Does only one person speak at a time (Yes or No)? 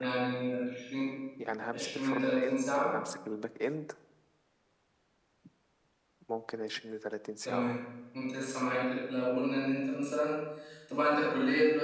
No